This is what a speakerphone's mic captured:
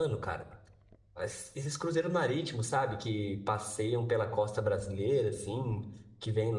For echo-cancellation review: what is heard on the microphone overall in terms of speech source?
user only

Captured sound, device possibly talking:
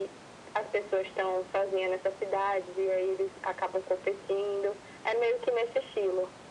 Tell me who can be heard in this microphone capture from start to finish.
echo only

